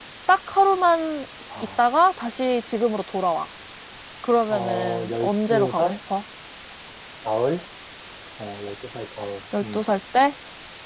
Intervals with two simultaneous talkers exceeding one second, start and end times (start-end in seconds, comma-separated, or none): 4.5-6.0